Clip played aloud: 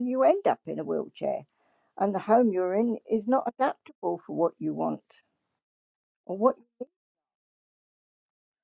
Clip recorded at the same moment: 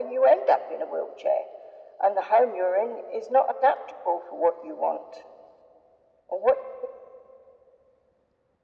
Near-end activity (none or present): none